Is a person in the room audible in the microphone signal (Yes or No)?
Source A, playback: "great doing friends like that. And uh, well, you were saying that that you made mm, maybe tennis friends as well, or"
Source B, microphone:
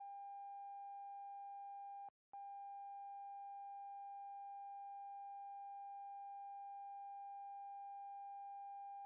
No